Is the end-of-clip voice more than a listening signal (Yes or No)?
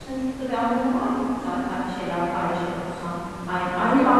No